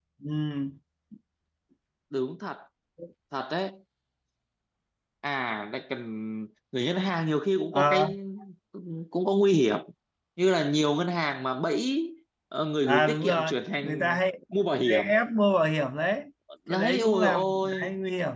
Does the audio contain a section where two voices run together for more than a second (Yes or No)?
Yes